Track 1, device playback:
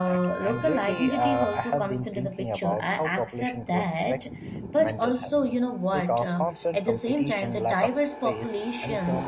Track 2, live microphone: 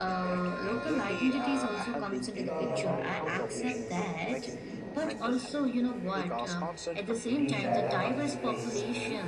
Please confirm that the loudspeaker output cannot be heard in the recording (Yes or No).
No